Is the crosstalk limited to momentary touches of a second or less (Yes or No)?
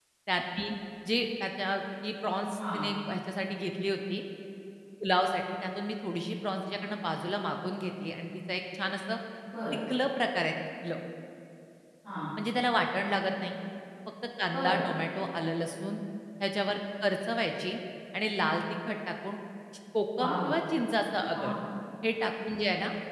Yes